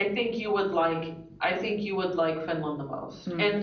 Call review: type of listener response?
taking over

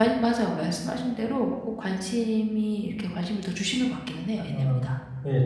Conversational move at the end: taking over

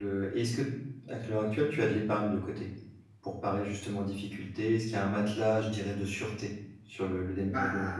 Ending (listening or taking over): taking over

